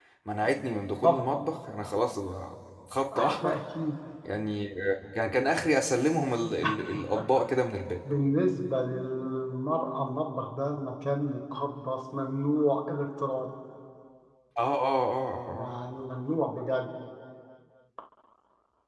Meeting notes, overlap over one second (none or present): none